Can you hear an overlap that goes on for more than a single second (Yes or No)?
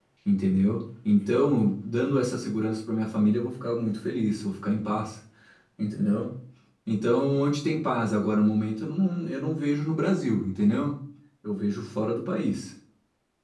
No